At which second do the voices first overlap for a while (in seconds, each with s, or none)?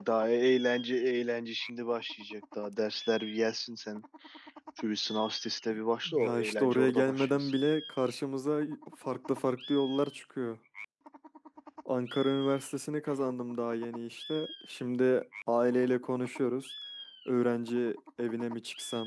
6.0 s